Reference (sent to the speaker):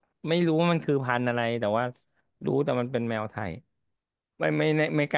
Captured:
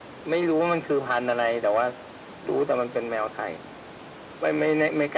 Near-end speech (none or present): none